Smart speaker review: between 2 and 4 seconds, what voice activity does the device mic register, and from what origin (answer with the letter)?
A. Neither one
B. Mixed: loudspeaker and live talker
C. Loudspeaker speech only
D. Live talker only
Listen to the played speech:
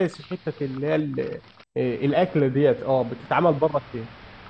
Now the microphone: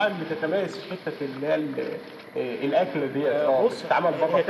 B